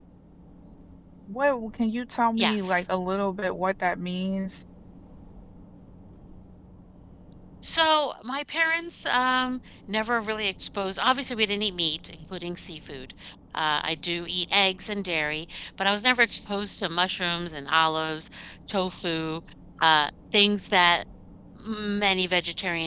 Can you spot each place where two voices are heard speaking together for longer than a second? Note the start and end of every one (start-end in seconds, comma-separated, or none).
none